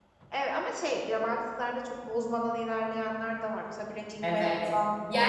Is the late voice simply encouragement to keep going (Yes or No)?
No